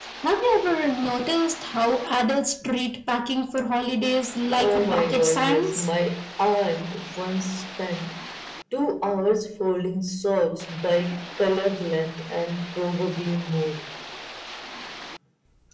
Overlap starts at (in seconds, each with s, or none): 4.6 s